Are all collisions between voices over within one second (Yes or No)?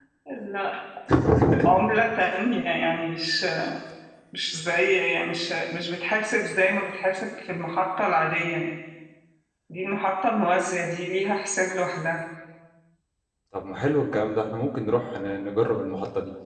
Yes